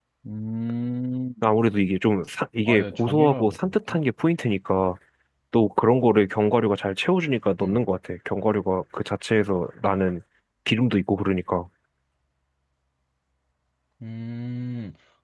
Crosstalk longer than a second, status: present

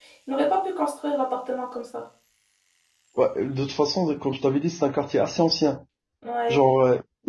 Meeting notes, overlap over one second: none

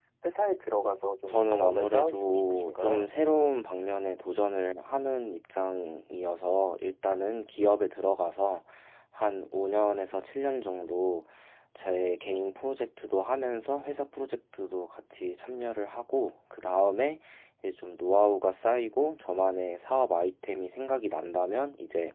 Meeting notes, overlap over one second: present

